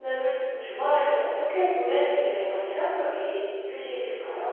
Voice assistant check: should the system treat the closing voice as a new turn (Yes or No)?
Yes